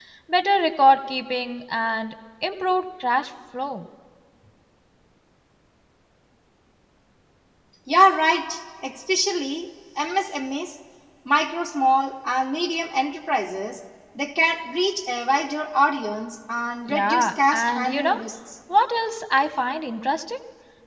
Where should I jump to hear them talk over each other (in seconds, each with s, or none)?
16.9 s